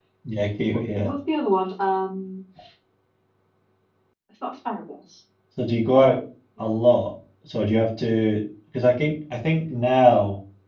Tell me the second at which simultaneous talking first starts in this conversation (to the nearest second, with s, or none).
none